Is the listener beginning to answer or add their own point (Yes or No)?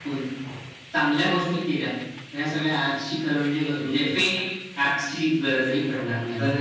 Yes